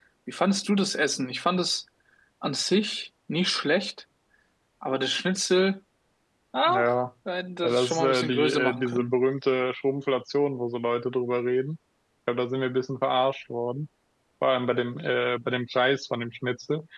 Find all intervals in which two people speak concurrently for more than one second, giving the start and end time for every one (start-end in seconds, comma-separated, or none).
7.6-9.1